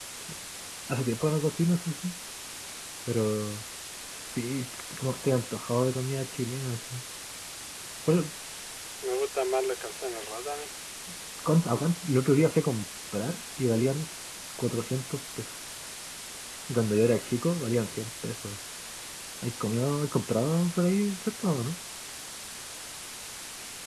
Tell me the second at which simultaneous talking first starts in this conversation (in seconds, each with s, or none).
none